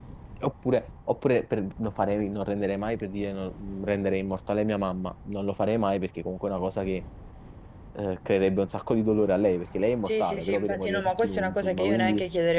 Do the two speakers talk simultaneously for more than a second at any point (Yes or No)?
Yes